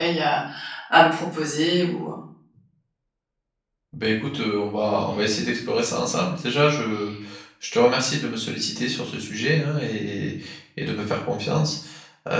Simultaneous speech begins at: none

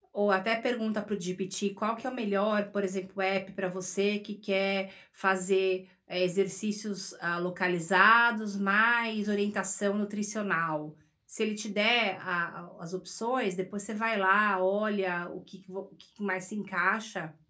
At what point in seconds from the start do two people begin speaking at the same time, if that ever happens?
none

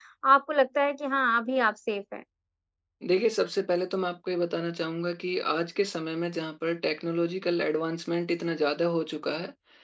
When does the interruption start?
none

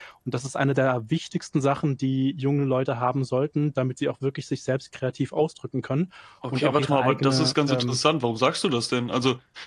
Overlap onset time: 6.4 s

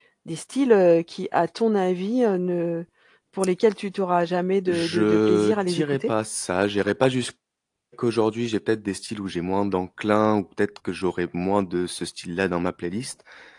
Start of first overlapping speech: 4.7 s

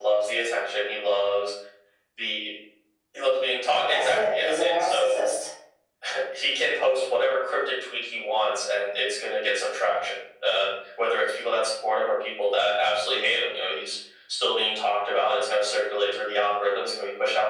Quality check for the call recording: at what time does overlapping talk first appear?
3.9 s

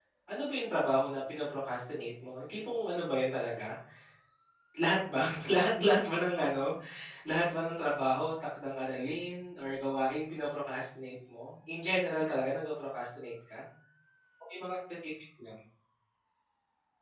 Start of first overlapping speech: none

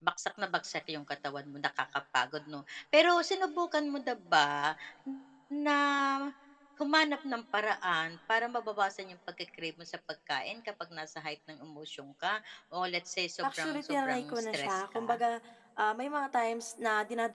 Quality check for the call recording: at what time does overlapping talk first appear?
13.4 s

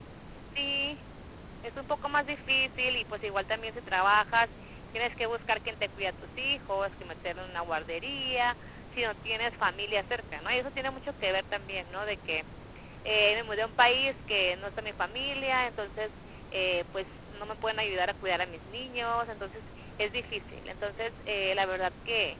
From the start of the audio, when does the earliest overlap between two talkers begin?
none

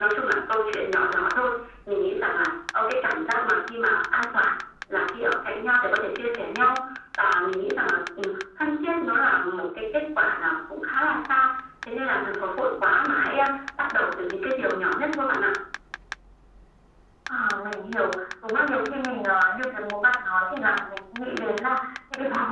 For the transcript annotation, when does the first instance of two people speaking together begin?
none

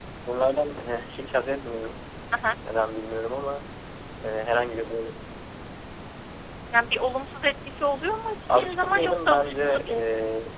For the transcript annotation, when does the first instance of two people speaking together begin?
8.5 s

